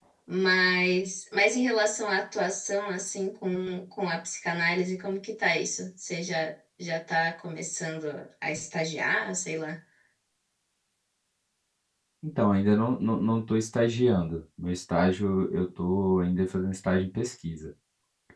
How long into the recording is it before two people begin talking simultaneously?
none

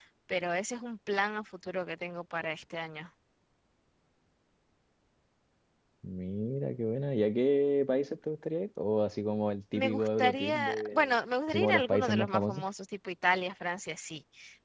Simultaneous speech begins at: 9.7 s

